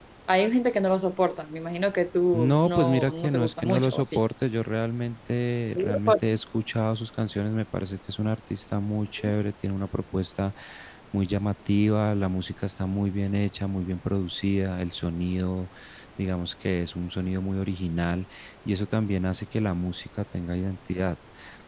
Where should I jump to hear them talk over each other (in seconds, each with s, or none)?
2.3 s